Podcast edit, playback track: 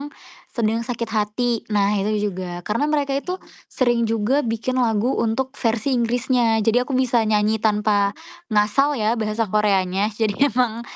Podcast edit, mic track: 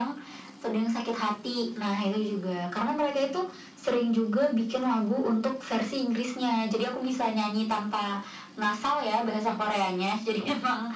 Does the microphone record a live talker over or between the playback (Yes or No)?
No